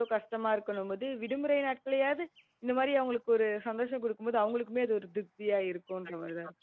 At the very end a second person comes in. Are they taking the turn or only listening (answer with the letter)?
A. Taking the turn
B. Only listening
A